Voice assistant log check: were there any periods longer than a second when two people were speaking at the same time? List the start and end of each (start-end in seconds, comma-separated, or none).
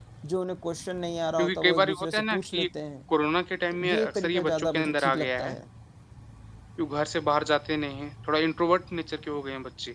1.4-2.7, 3.7-5.5